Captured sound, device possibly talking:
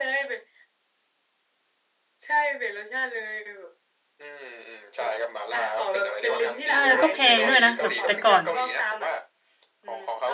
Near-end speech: present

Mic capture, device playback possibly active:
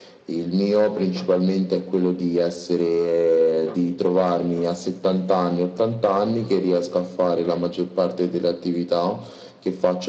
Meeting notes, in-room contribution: none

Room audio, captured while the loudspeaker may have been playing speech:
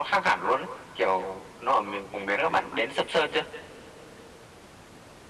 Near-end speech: none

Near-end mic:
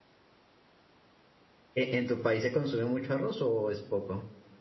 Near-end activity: present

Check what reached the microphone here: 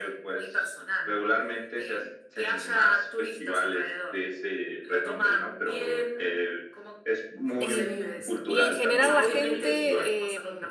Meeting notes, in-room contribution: present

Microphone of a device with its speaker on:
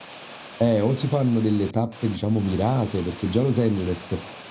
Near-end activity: present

